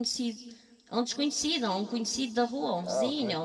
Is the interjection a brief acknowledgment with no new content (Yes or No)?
Yes